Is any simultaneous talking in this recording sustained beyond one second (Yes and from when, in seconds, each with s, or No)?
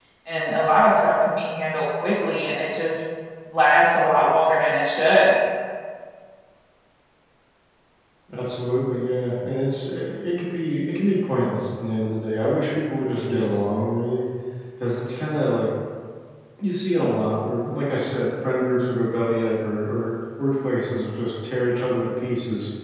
No